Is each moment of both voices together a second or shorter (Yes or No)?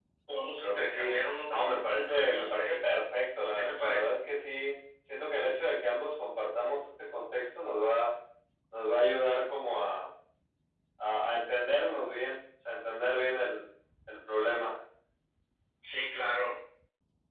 No